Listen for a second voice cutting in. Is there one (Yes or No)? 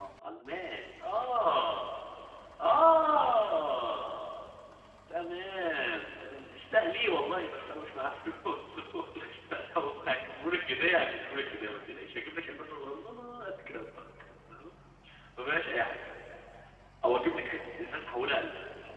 No